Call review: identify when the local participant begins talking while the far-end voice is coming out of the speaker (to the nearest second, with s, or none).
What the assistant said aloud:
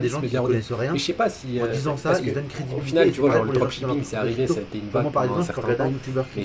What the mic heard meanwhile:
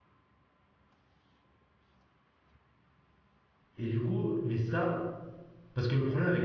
4 s